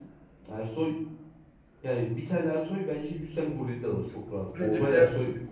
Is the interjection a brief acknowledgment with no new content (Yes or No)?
No